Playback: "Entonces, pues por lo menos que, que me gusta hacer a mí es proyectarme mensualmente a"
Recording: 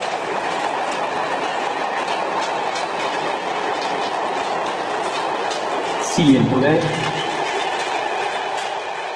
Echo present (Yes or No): No